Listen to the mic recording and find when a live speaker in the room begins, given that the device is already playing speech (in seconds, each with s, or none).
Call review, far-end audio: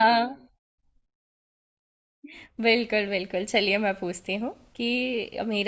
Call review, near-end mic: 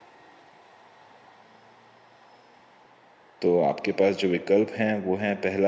3.4 s